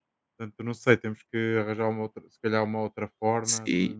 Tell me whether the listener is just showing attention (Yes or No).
No